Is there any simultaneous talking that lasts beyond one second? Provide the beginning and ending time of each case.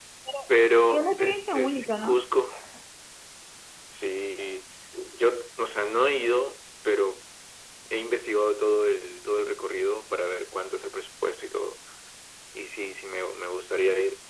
0.9-2.2

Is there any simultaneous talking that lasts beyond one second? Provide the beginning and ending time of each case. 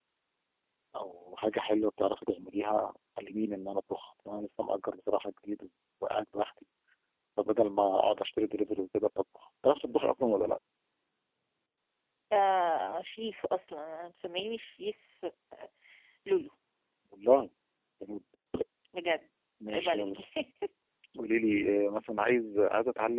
none

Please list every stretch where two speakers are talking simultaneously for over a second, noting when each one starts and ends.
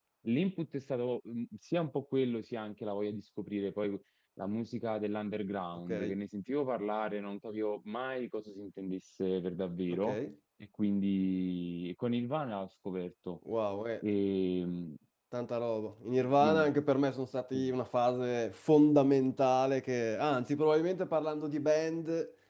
none

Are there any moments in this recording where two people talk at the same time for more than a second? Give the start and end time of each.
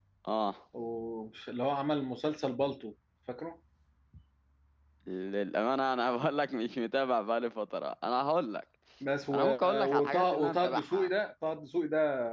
9.3-11.1

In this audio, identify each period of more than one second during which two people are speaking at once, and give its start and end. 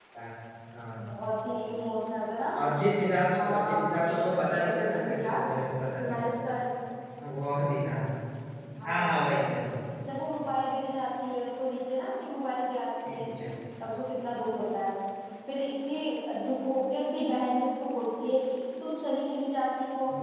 3.3-5.4

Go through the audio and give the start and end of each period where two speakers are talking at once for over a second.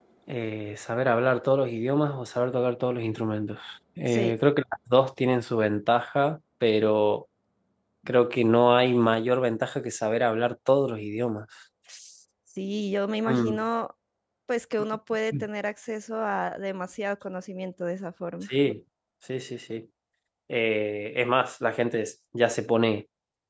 none

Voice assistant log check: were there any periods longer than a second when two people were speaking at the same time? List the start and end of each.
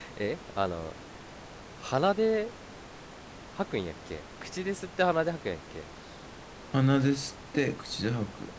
none

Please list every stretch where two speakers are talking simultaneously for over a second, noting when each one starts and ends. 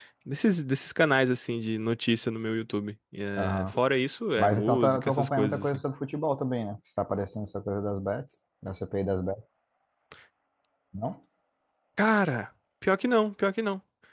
4.4-5.8

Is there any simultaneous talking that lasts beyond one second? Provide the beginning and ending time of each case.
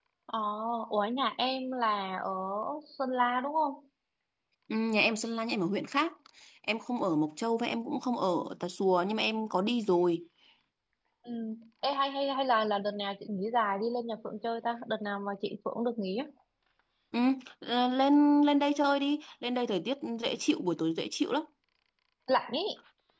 none

